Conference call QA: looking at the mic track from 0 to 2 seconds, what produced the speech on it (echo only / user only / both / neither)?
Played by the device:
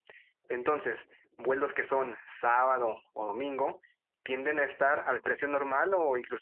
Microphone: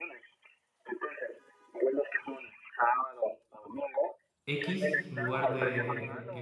echo only